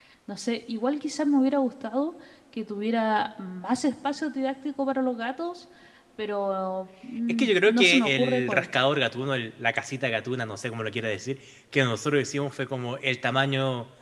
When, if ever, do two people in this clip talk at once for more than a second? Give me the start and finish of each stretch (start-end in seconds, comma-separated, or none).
7.3-8.7